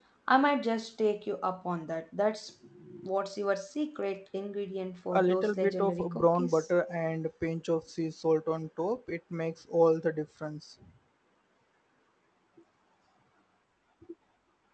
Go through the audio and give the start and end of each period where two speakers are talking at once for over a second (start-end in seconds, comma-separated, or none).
5.1-6.7